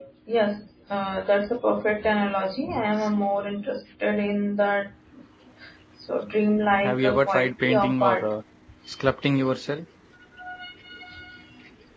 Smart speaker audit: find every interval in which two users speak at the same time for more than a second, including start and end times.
6.8-8.3

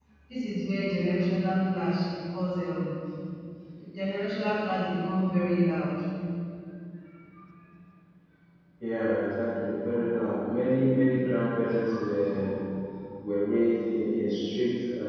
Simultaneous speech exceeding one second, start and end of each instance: none

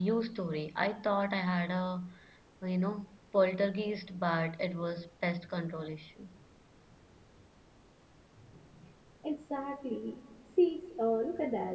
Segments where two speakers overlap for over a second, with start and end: none

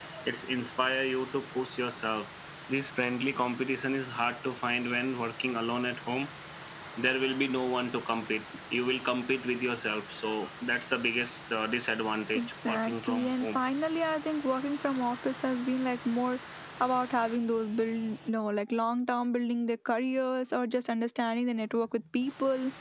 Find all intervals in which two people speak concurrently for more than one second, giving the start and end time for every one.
12.3-13.6

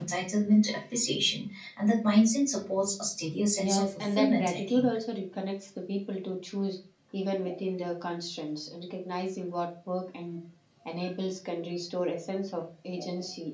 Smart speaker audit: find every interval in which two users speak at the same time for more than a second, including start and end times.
3.6-4.9

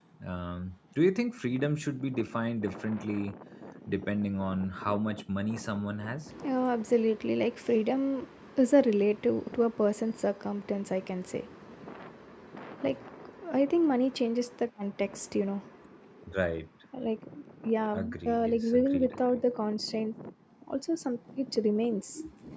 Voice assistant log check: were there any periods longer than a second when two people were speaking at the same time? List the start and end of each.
18.0-19.4

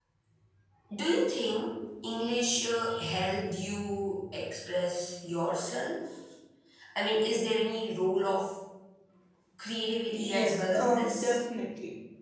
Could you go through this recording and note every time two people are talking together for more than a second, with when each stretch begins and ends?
10.1-11.4

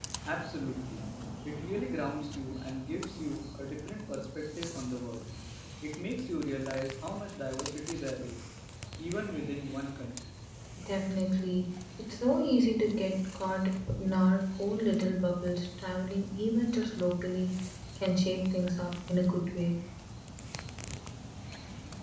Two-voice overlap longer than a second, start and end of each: none

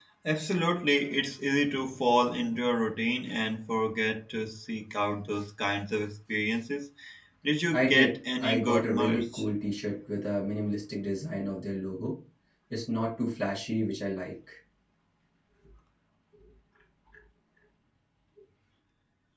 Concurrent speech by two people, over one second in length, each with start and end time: 7.7-9.4

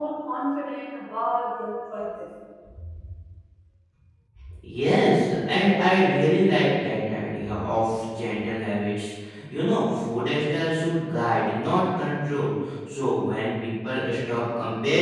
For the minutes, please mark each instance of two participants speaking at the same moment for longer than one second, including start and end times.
none

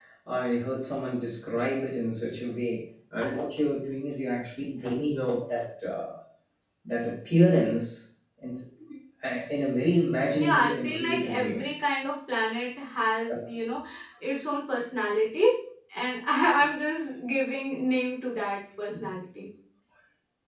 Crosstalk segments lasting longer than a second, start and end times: 10.3-11.7

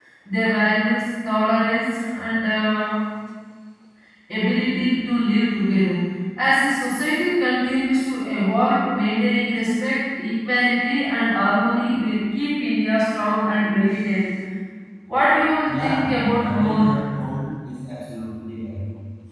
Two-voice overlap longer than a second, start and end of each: 15.7-16.9

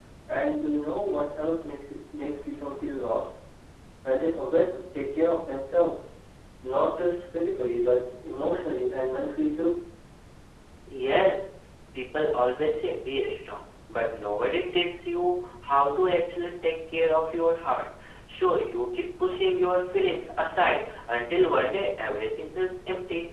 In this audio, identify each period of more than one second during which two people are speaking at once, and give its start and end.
none

